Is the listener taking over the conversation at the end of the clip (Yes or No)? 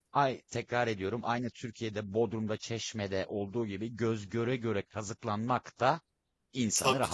Yes